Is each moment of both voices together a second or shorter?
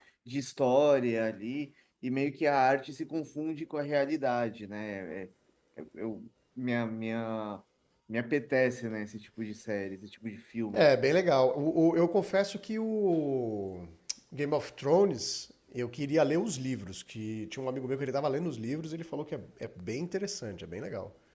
Yes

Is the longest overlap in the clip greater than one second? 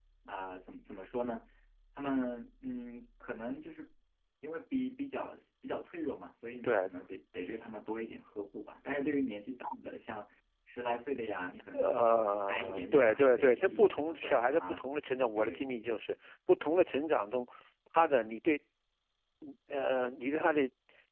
Yes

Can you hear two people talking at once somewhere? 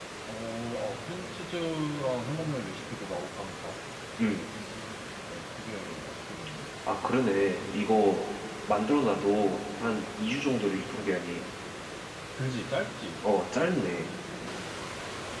No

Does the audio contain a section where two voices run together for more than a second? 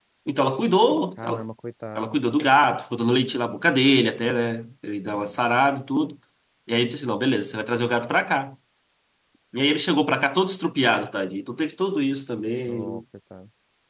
No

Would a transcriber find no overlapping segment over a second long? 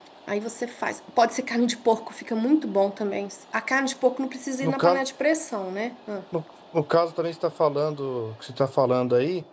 Yes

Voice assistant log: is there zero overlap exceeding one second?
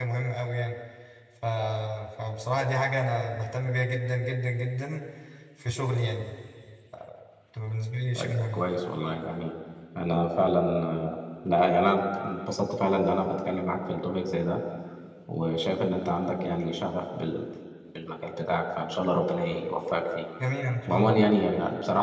Yes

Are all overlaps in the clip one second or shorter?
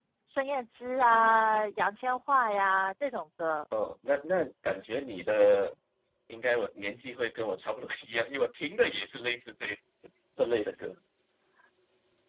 Yes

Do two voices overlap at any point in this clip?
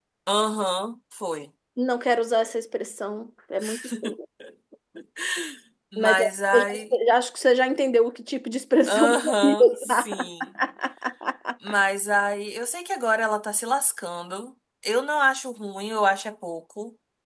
Yes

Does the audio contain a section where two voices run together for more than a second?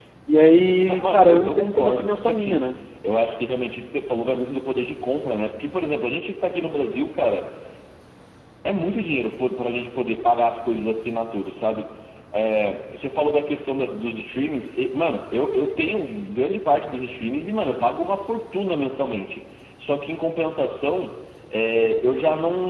Yes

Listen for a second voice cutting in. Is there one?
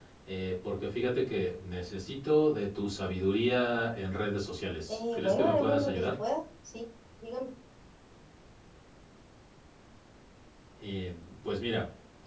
Yes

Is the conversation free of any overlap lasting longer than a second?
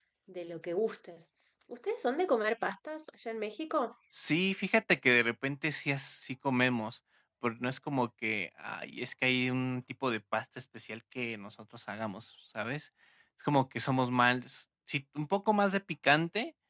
Yes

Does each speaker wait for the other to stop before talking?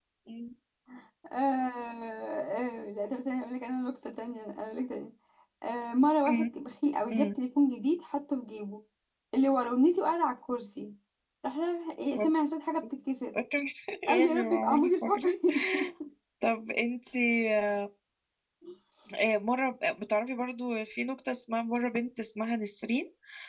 No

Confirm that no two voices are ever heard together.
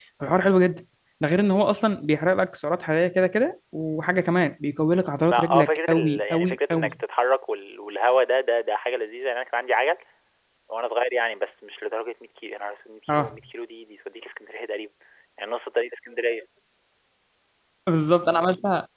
No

